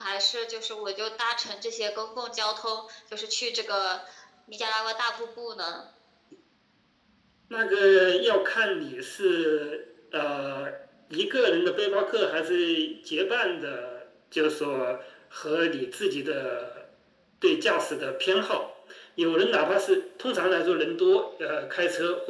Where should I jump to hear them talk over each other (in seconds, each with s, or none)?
none